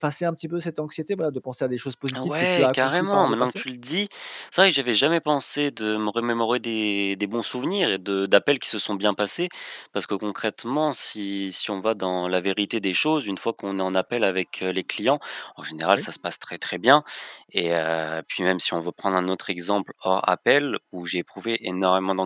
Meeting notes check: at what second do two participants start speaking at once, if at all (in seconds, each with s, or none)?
2.1 s